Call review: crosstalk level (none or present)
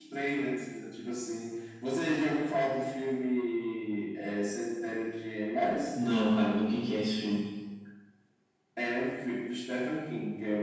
none